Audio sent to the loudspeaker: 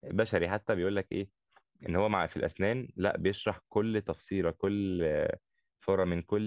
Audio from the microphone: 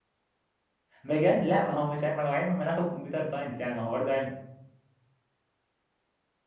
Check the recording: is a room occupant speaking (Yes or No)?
Yes